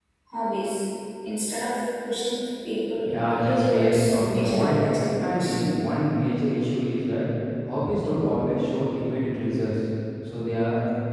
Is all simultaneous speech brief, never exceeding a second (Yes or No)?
No